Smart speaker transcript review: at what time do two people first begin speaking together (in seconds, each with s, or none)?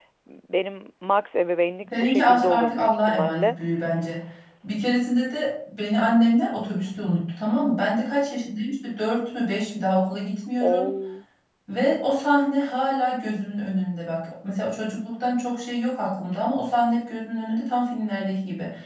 2.0 s